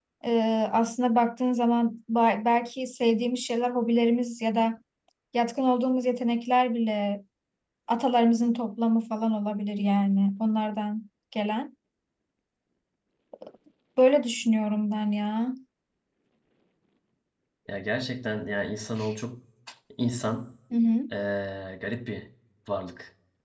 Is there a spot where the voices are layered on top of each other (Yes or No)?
No